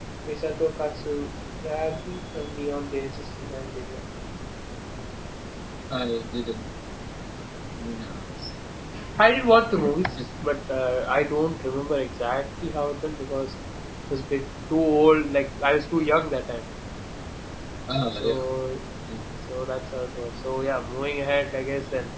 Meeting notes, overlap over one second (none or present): none